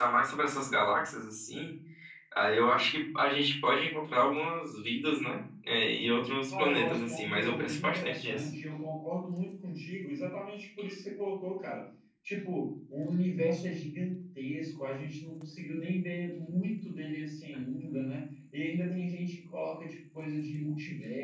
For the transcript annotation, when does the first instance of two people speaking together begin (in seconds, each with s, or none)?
6.5 s